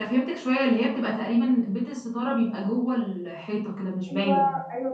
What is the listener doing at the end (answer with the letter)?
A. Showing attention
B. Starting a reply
B